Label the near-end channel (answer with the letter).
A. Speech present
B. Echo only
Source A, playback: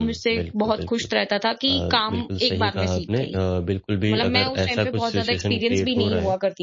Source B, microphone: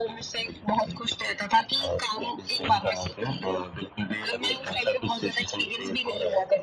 B